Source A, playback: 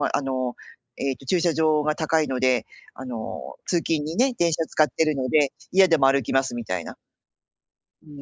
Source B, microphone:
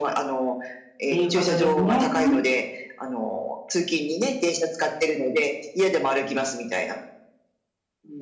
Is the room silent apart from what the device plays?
No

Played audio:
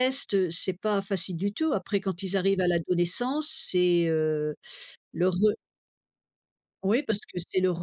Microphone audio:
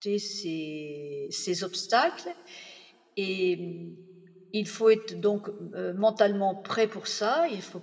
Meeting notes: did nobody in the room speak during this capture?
No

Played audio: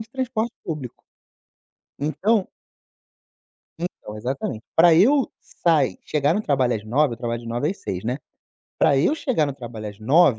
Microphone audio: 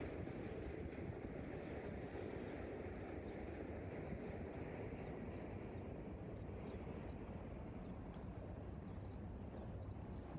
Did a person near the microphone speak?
No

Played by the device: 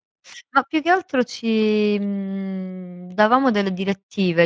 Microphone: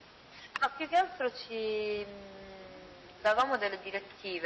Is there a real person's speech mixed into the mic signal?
No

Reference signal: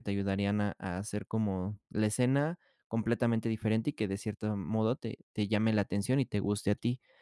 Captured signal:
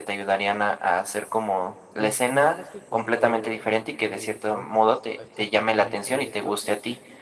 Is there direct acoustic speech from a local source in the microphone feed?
Yes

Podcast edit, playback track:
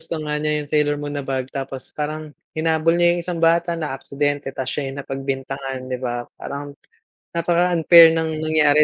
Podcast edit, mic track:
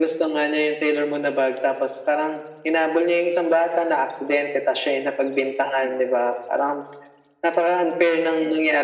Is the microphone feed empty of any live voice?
Yes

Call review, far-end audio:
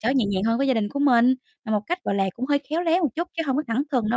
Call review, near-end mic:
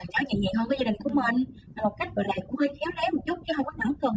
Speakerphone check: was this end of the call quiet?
No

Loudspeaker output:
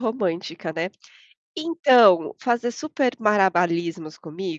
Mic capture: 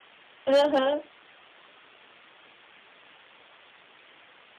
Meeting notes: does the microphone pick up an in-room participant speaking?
Yes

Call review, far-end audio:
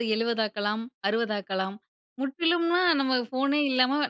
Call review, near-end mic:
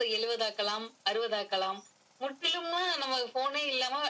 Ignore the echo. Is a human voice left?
No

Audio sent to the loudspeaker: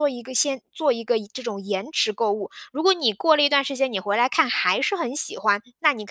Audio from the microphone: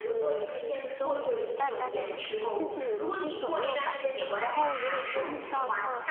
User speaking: Yes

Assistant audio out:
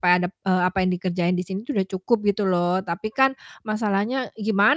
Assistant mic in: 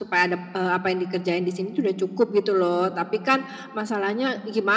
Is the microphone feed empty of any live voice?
Yes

